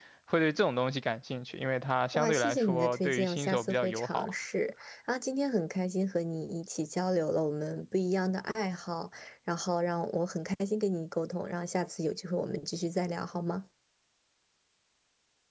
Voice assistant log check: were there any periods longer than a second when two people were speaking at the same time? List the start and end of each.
2.1-4.3

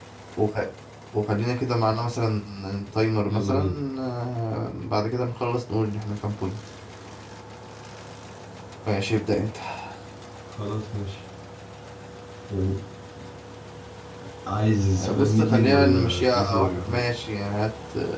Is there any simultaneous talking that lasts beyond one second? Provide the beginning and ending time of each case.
15.2-17.0

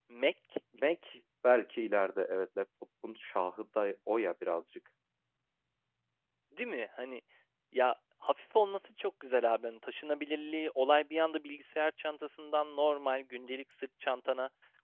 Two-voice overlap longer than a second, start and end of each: none

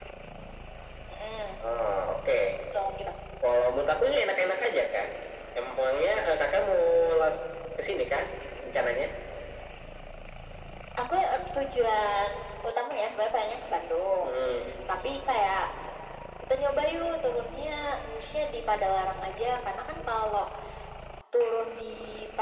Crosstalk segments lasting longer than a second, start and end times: none

